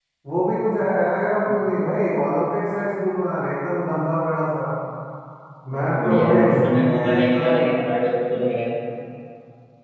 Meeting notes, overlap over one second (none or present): present